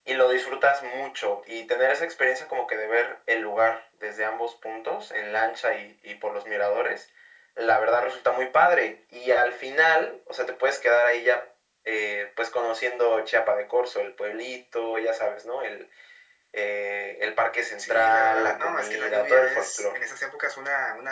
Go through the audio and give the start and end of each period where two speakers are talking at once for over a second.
17.8-20.0

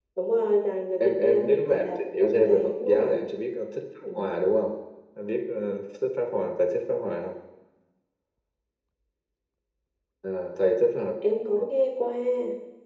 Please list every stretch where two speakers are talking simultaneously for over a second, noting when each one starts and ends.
1.0-3.2

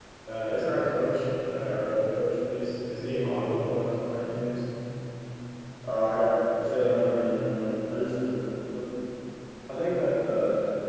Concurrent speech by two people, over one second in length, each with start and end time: none

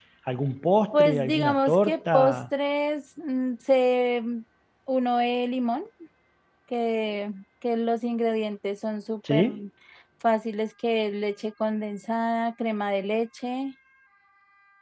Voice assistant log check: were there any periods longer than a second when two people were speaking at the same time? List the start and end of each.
0.9-2.4

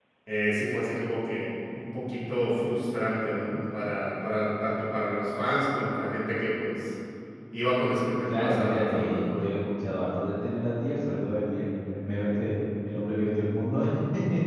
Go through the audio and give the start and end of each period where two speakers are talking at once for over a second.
8.3-9.6

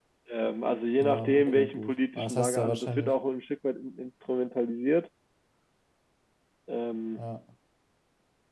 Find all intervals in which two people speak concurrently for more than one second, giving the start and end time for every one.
1.0-3.1

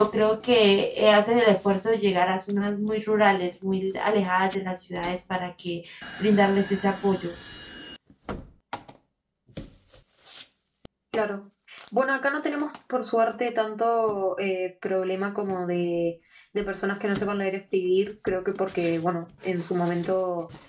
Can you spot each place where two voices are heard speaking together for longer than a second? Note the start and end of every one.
none

